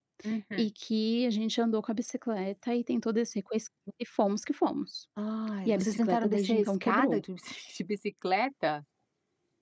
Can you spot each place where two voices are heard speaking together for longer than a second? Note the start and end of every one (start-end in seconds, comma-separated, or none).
5.7-7.2